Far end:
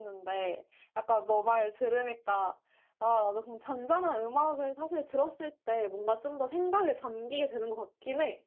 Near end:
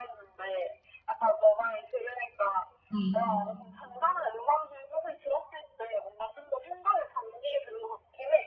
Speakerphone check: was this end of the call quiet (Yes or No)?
No